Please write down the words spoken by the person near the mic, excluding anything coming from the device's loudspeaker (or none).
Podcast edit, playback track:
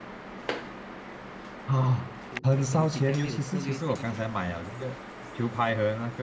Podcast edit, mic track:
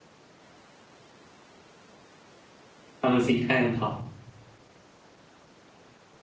他们心态很好，